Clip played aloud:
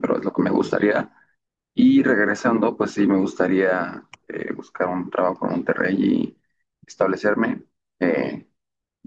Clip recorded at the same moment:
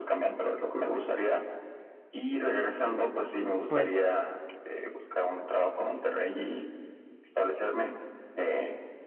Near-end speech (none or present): present